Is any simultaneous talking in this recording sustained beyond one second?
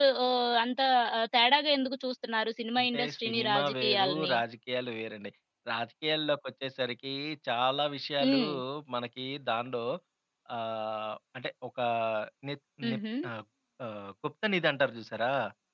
Yes, from 2.8 s

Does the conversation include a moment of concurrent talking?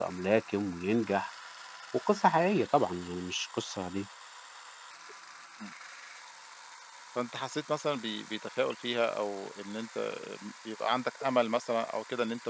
No

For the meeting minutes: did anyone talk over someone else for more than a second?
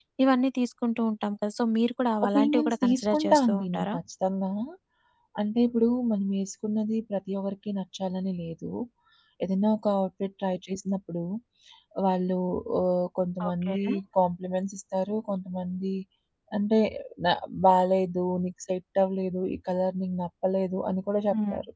Yes, from 2.2 s

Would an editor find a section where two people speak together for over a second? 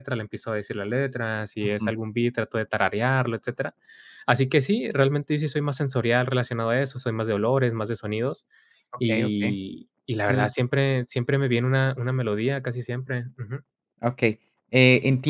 No

